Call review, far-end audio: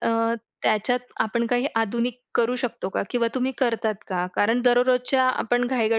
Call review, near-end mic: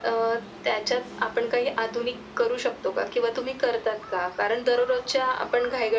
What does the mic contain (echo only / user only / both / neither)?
echo only